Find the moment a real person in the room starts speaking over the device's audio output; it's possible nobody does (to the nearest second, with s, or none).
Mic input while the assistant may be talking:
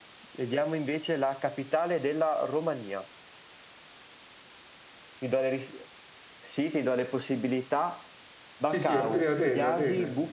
9 s